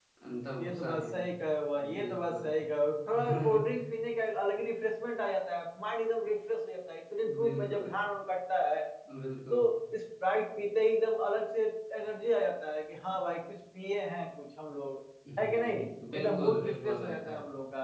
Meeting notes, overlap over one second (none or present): present